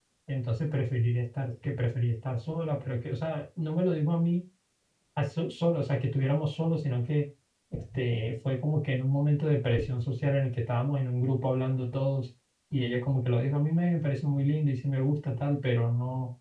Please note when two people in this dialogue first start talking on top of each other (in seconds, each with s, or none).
none